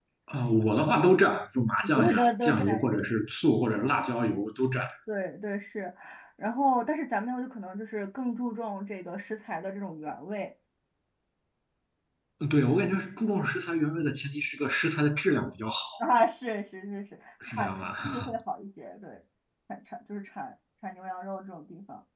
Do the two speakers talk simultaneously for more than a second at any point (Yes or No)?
Yes